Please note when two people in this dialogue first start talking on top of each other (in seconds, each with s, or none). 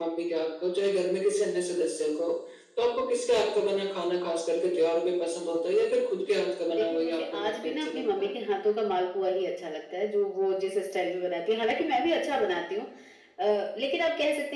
6.7 s